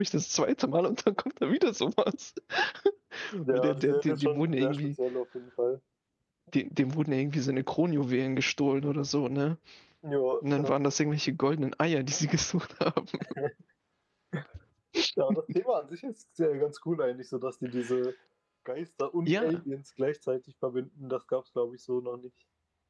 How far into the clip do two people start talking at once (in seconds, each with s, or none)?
3.5 s